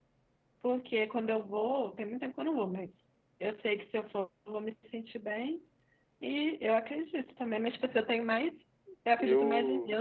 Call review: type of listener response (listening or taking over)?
listening